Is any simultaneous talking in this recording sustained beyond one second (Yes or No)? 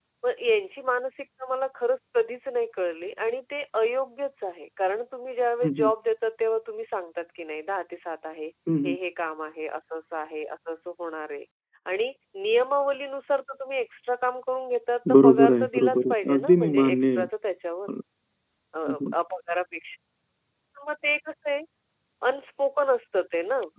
Yes